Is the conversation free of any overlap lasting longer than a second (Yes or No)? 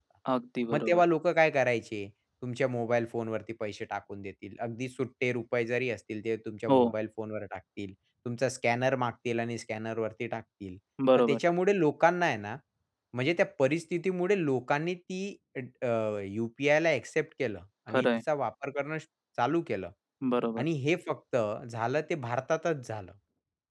Yes